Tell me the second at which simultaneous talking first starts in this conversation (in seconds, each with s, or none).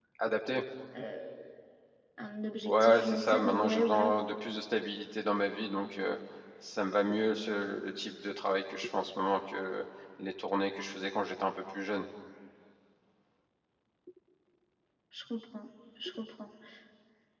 2.6 s